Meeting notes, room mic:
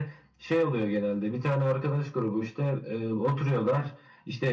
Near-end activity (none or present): none